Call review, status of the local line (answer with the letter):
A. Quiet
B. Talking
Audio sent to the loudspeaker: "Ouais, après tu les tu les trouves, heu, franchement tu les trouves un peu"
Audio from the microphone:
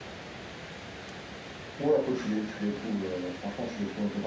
A